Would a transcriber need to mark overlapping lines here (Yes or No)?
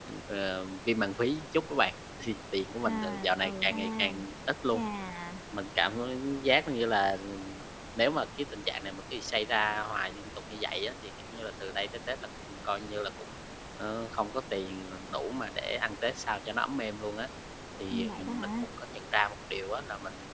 Yes